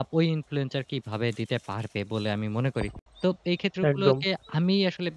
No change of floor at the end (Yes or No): Yes